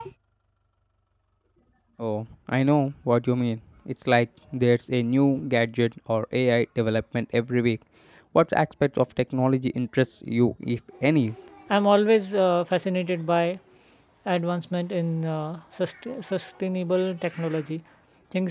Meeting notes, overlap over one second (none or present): none